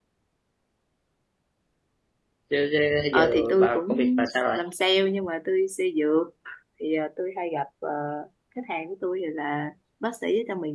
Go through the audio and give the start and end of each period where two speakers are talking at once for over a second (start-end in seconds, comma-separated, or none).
3.1-4.6